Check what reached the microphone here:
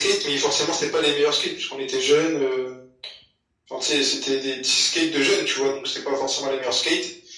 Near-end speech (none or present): none